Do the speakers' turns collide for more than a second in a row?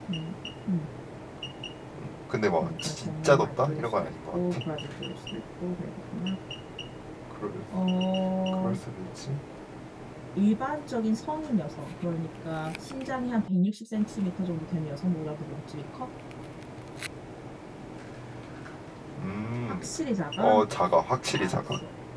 Yes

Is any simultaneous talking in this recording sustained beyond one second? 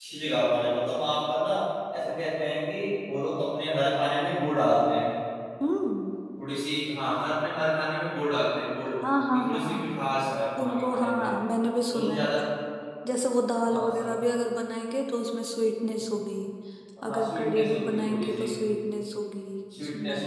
Yes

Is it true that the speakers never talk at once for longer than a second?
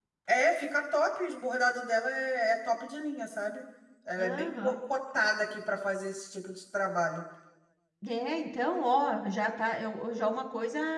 Yes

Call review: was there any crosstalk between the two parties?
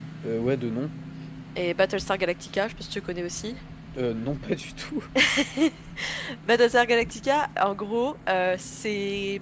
No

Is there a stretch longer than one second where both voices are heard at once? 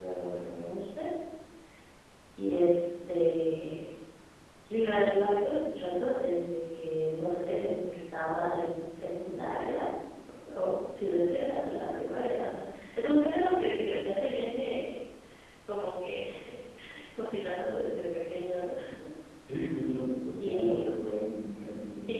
No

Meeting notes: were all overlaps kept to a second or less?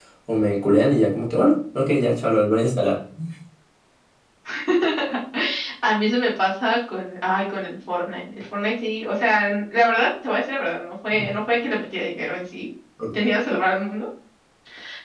Yes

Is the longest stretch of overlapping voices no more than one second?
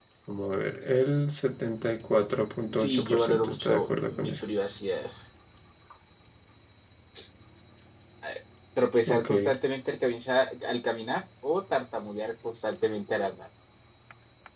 No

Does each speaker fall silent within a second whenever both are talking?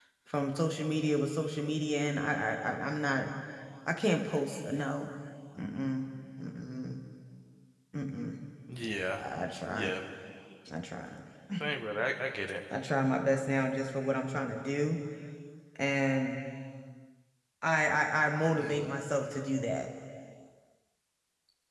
Yes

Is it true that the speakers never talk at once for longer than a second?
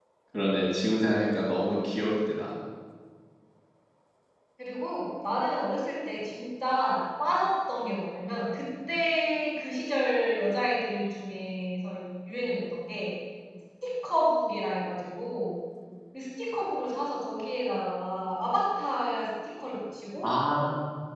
Yes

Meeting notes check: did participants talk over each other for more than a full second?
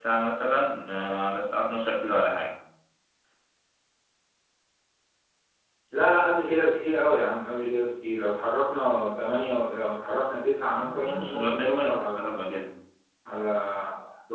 Yes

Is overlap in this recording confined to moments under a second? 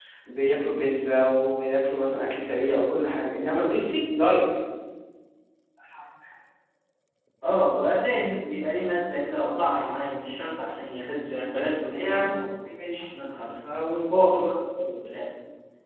Yes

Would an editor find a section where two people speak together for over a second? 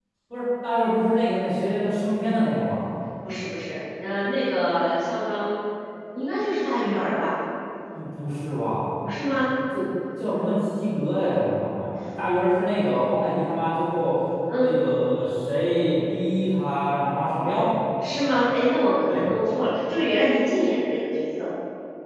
No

